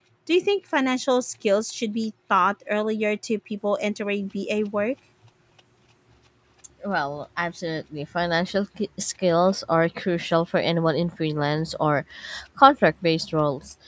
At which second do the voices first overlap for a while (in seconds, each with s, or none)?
none